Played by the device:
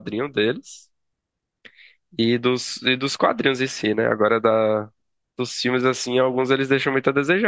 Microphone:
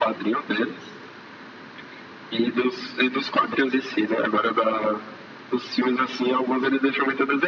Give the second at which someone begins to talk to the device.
none

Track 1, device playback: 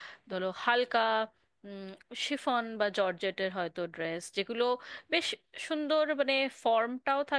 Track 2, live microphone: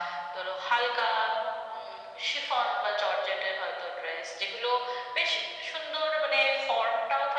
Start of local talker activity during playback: none

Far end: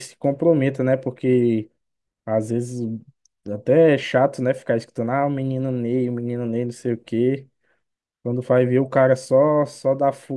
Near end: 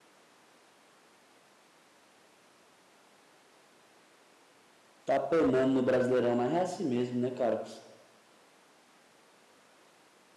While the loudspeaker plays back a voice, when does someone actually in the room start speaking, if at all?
5.0 s

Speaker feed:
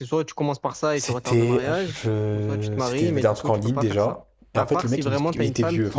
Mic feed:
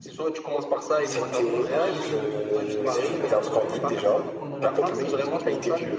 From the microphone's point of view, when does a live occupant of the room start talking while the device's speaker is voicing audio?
1.0 s

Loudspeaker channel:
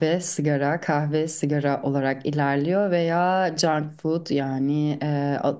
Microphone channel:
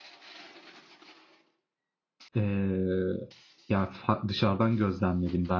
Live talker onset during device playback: 2.4 s

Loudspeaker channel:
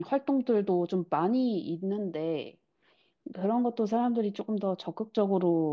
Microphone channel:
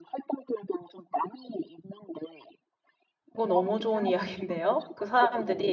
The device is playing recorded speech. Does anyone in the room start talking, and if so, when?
3.3 s

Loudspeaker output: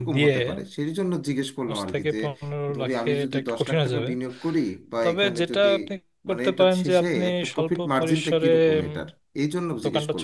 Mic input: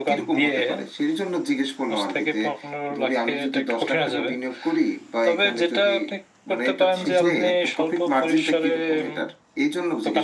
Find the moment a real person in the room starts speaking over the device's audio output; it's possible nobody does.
7.0 s

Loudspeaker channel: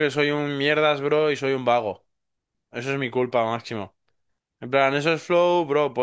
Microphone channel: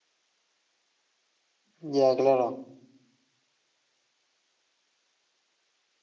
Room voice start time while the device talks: 1.8 s

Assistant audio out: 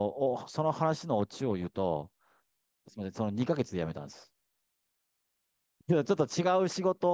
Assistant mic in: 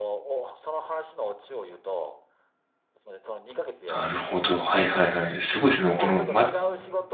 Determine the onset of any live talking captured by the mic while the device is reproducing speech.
3.9 s

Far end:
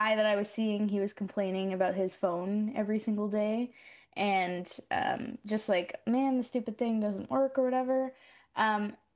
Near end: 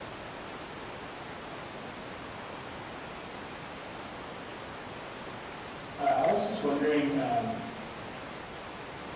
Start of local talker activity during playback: 6.0 s

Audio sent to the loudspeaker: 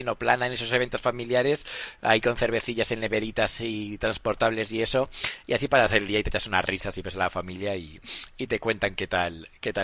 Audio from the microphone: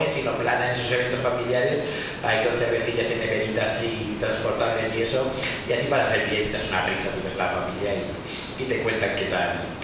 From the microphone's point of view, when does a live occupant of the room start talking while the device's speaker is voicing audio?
none

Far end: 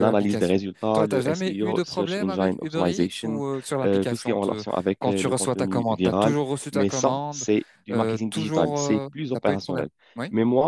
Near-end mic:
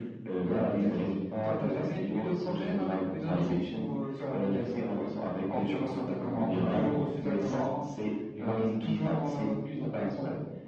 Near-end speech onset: none

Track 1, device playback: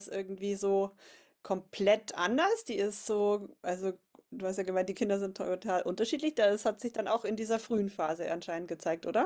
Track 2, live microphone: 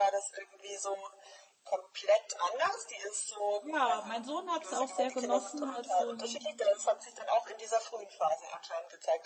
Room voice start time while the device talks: 3.6 s

